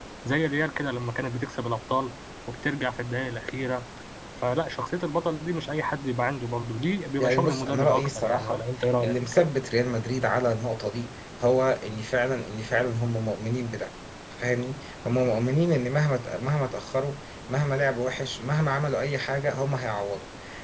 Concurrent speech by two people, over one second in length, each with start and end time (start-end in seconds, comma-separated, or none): 7.2-8.6